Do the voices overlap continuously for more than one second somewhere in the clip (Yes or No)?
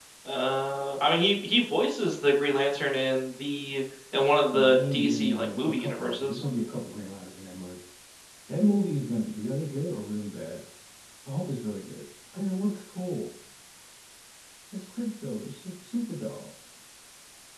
Yes